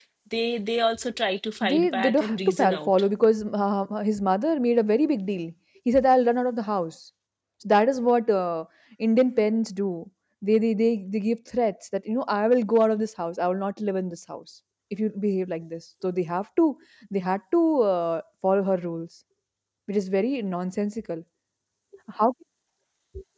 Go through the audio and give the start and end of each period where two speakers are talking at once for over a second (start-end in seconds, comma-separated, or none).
1.7-2.9